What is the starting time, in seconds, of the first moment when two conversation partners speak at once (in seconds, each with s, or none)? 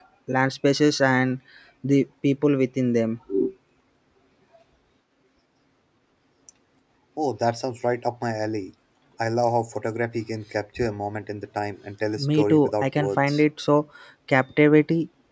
12.2 s